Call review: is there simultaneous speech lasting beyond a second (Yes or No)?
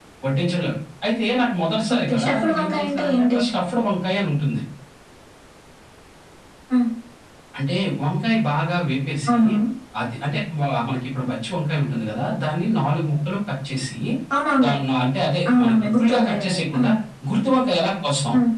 Yes